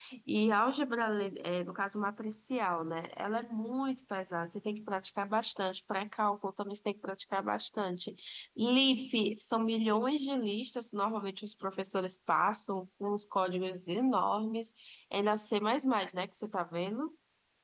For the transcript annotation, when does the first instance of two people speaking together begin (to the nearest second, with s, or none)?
none